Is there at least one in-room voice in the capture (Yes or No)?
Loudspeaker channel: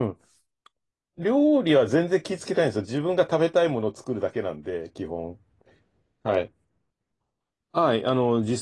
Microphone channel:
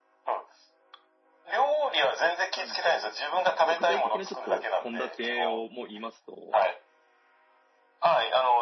Yes